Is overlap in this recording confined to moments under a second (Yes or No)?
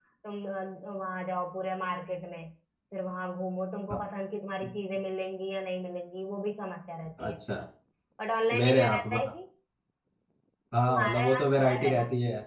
No